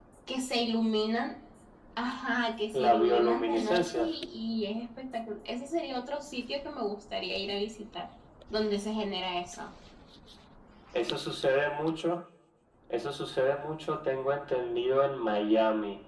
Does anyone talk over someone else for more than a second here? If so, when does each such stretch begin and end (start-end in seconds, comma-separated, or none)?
2.7-4.1